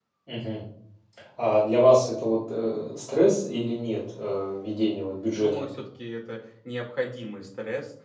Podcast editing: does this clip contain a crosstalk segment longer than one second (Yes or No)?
No